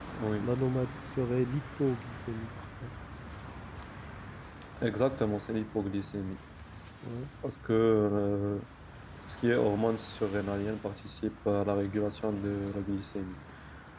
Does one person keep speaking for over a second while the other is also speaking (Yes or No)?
No